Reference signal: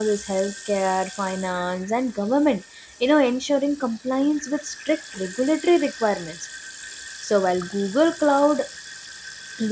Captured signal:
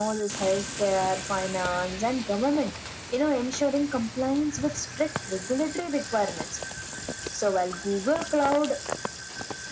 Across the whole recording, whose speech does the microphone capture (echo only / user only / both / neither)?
echo only